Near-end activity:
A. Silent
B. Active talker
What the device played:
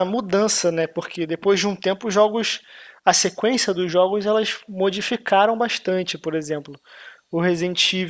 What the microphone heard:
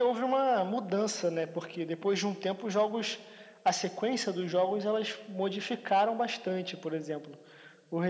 A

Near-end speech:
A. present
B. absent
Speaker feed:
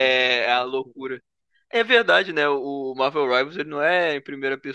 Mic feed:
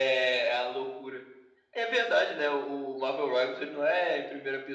B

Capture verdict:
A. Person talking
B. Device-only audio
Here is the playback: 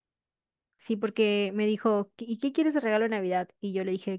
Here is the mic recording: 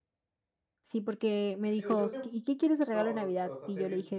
A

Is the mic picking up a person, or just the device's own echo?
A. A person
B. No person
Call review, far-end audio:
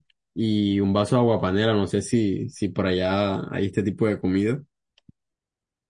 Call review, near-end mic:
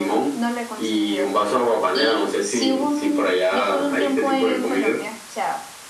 A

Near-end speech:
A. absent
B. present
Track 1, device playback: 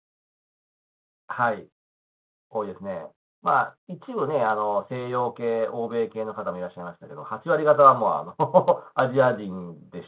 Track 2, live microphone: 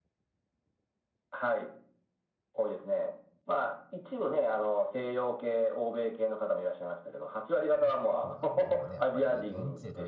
B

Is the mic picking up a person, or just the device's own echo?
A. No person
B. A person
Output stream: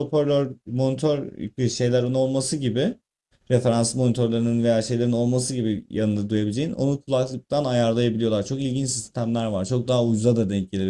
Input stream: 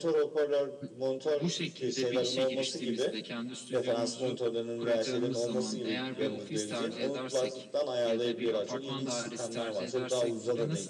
B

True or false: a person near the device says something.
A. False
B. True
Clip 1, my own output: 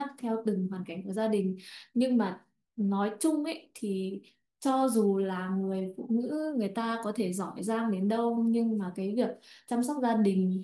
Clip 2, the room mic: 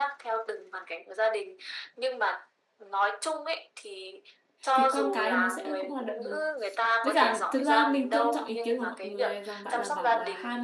B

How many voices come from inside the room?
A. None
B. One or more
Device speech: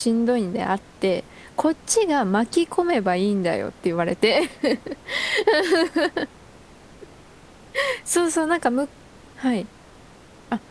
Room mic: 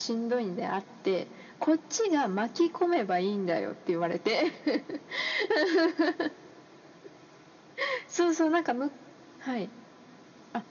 A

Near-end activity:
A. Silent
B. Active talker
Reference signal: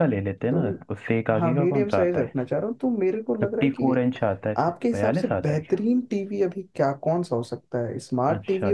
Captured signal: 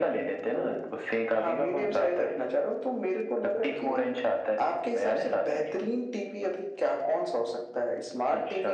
A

